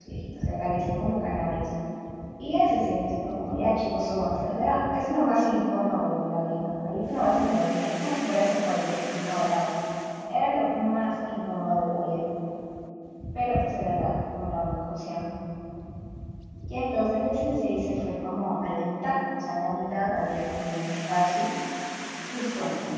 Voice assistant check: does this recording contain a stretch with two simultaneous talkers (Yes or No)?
No